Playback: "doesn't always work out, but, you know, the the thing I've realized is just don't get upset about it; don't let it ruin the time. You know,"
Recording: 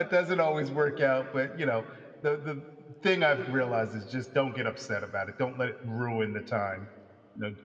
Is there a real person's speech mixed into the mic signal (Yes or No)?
No